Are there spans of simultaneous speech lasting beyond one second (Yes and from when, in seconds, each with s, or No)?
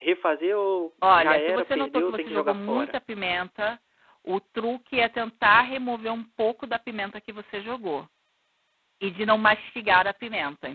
Yes, from 1.1 s